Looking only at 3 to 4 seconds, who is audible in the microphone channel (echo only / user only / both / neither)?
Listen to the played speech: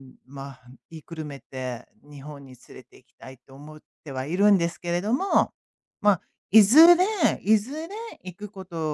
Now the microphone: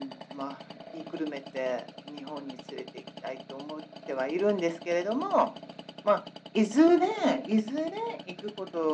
echo only